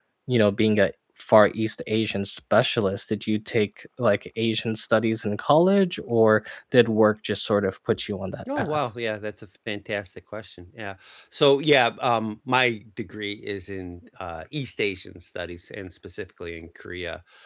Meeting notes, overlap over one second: none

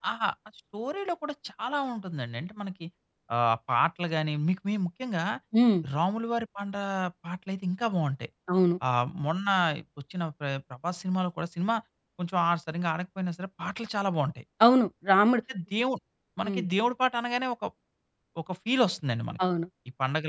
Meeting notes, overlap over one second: none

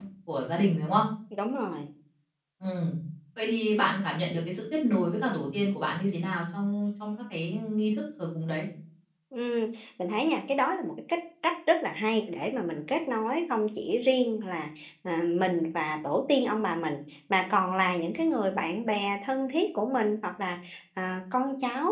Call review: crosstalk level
none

